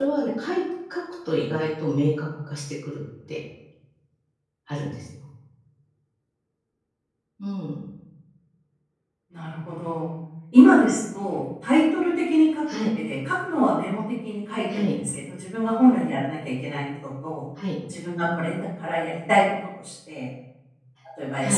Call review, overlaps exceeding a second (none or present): none